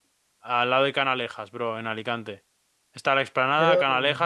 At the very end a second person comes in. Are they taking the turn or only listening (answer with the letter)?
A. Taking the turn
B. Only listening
B